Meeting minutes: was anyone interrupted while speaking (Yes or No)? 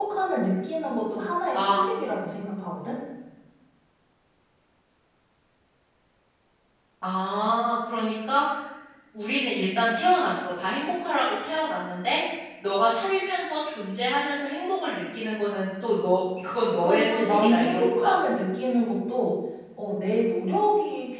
Yes